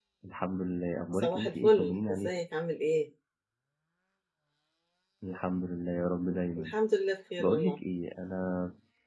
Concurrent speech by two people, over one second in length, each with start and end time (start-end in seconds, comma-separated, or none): 1.1-2.4